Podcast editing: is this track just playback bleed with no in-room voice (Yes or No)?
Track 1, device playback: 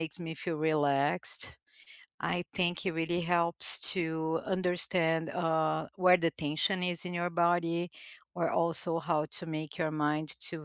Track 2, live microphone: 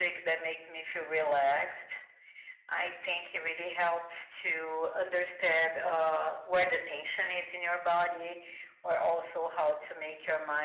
Yes